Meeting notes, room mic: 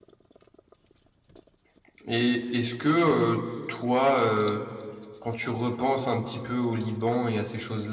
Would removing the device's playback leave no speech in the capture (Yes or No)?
No